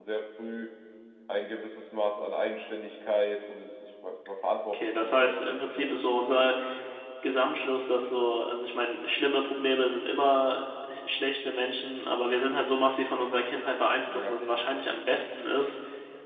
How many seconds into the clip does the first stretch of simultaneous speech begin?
5 s

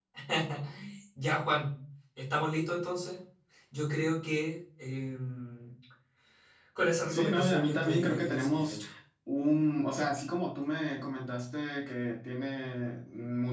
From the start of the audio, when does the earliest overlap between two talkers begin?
7 s

